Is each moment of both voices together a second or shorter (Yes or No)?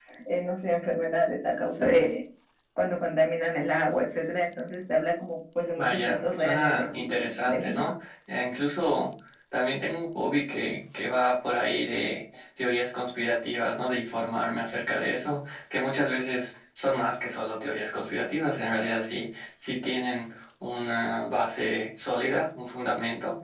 No